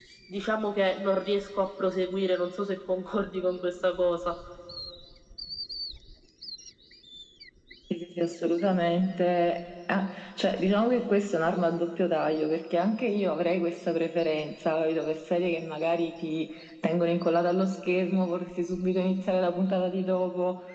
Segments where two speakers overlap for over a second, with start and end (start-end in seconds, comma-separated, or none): none